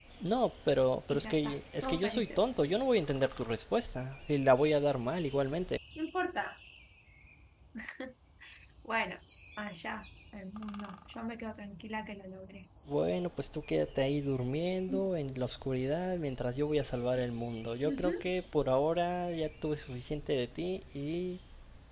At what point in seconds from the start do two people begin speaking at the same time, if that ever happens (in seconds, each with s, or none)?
1.1 s